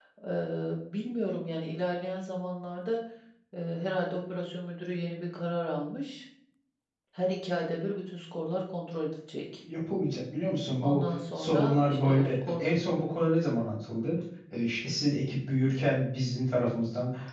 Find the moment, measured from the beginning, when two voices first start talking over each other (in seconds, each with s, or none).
10.8 s